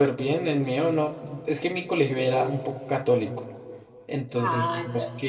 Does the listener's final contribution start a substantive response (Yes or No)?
No